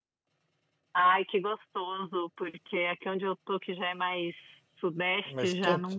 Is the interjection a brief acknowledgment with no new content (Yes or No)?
Yes